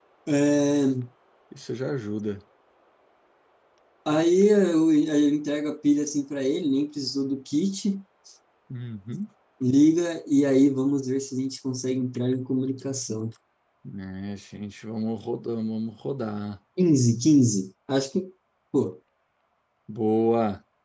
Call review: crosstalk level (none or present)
none